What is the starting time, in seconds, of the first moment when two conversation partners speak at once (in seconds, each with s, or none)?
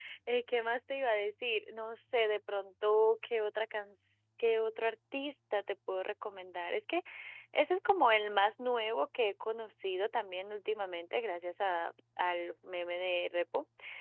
none